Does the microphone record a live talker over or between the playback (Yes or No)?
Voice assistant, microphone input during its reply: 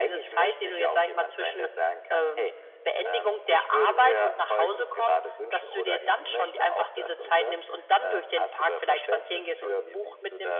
No